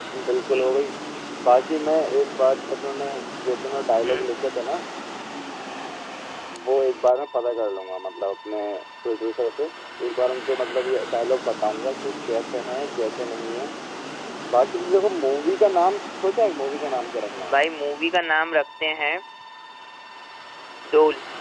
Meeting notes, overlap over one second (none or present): none